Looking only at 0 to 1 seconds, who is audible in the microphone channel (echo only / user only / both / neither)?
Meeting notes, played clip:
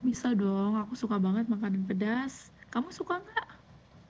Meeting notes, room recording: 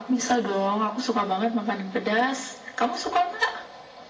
echo only